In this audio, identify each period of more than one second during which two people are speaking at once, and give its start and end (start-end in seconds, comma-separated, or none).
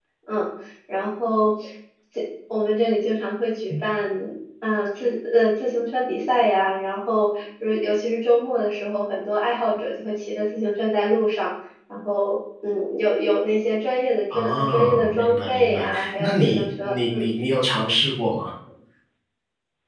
14.3-17.3